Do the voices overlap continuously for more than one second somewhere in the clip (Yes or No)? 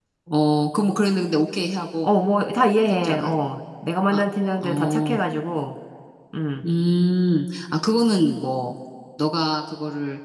No